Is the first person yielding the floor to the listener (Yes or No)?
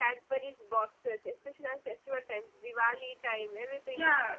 Yes